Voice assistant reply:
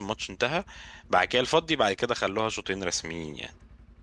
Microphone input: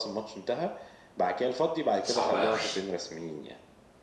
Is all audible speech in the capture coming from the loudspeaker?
No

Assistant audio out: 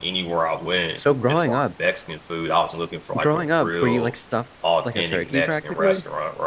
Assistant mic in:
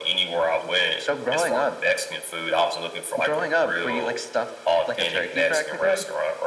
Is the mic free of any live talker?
Yes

